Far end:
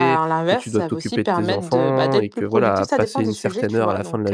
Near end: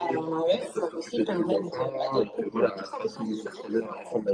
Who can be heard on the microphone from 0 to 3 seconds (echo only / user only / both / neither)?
echo only